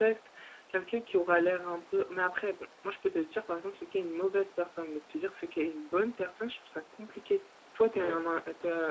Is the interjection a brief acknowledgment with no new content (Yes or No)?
Yes